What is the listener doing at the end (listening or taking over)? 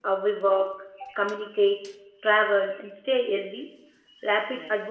listening